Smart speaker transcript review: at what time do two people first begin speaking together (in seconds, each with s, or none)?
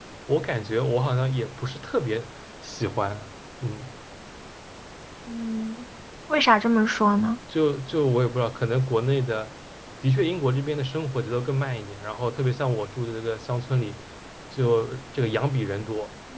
none